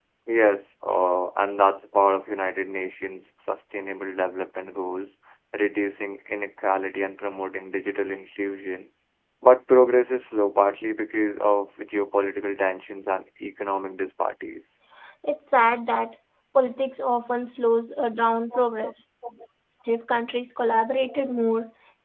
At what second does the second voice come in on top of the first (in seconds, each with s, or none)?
none